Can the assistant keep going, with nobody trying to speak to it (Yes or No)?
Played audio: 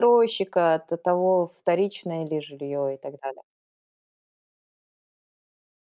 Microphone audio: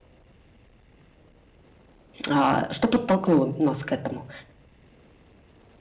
No